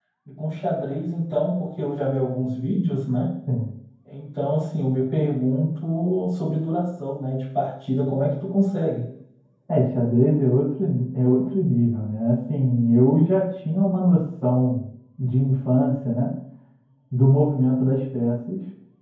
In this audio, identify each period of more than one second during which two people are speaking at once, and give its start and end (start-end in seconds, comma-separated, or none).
none